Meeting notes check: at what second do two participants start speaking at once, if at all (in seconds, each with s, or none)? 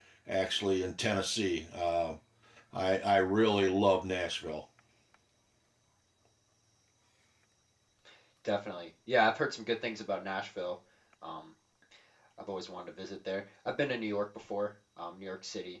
none